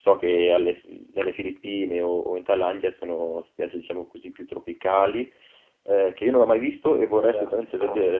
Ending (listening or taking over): listening